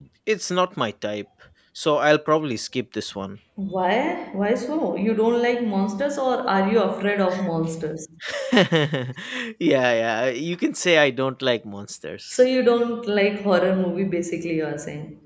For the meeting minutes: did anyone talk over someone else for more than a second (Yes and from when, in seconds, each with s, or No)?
No